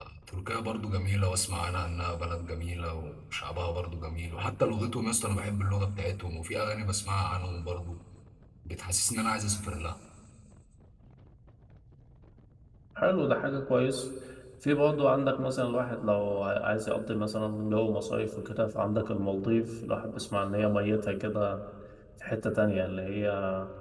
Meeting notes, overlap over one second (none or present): none